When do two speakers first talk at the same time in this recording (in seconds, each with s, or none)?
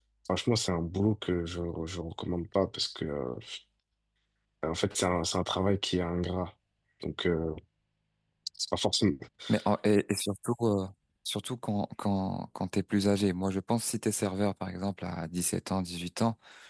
none